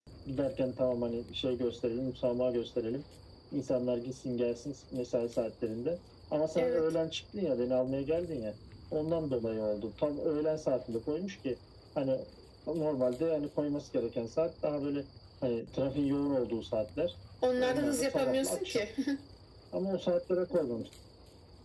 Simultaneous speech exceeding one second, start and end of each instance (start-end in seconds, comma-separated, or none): 17.6-18.9